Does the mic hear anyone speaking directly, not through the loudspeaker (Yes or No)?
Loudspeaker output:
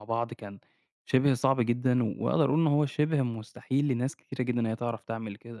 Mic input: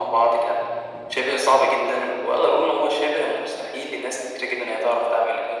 No